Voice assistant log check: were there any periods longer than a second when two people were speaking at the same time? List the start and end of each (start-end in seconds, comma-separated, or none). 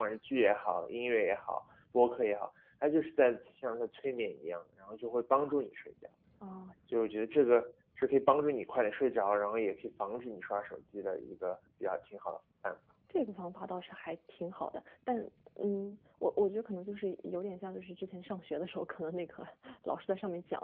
none